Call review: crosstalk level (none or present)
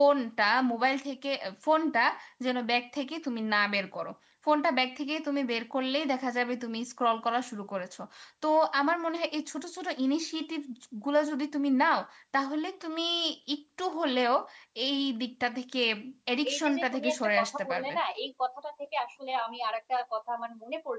present